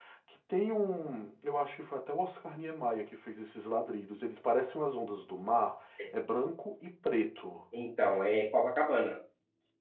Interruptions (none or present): none